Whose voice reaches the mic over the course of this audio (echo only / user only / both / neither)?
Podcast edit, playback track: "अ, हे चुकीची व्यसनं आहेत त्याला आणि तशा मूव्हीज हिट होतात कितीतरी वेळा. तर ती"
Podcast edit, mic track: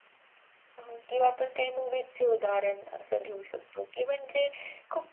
user only